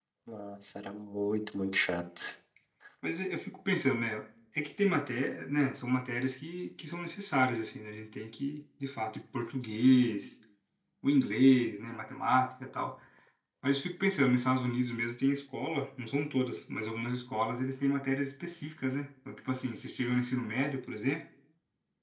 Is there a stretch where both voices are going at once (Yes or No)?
No